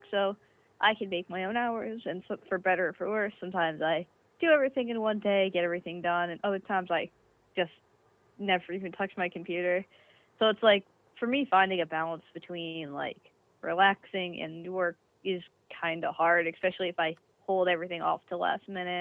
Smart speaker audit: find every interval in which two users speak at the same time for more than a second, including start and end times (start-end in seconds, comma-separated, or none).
none